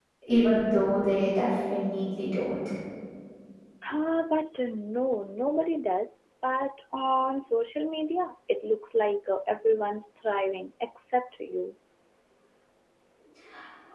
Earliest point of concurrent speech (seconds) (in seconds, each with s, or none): none